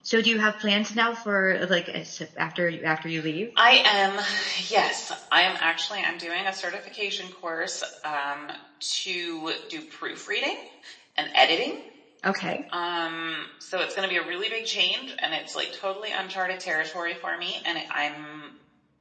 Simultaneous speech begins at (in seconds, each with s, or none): none